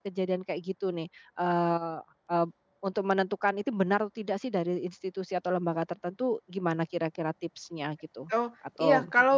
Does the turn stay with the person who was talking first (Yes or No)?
No